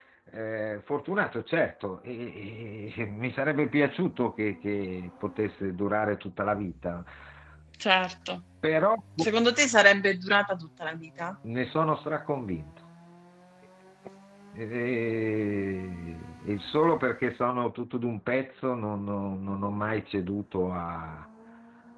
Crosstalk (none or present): none